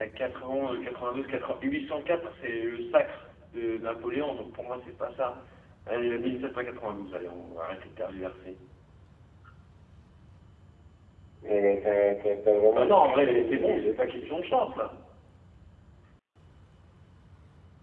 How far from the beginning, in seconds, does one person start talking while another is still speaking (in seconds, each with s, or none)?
12.8 s